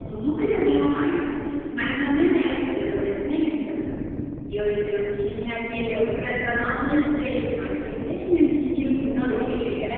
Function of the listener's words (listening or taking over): listening